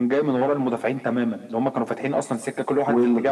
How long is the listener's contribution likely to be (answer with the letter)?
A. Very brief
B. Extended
B